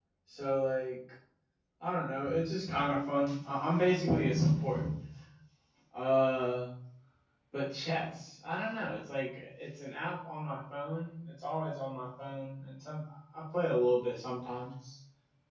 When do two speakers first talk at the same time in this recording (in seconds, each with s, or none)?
none